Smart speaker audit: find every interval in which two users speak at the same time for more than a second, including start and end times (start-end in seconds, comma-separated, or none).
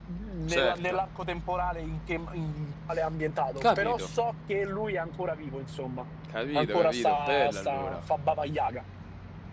6.5-8.0